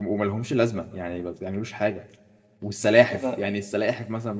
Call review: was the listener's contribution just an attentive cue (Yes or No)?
Yes